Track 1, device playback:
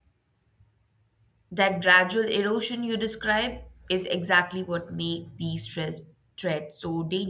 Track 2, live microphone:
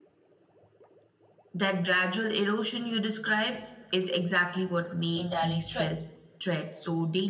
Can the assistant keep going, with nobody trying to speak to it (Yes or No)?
No